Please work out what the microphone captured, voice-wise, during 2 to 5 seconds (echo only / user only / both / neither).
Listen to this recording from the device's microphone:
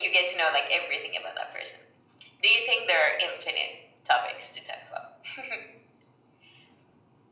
echo only